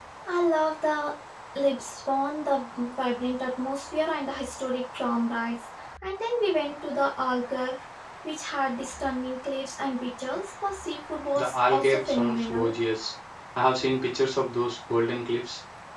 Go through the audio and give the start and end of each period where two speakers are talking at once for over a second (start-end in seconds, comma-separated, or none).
11.3-12.7